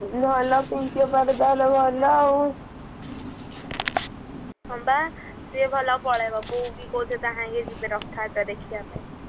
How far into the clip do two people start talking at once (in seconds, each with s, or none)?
none